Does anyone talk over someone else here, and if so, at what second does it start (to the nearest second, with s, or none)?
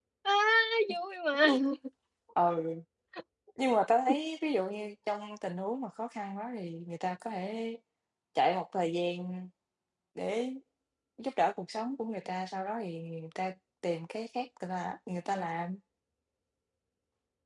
none